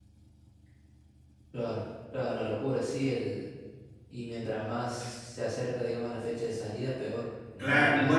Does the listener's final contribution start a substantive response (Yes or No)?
Yes